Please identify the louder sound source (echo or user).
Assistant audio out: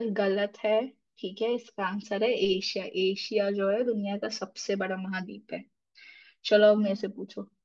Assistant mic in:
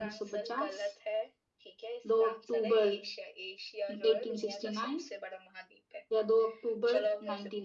user